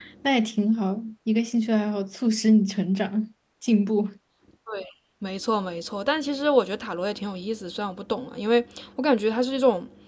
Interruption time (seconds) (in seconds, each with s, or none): none